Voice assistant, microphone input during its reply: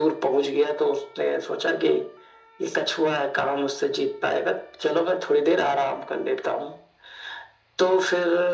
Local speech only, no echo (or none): none